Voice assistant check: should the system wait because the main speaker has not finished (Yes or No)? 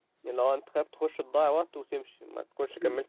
No